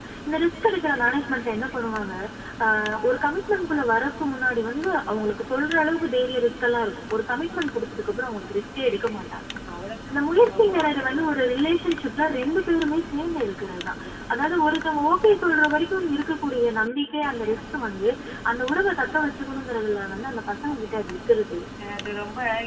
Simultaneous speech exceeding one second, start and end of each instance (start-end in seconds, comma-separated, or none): 10.1-11.4